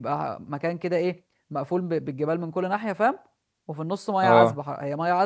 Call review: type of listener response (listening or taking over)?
listening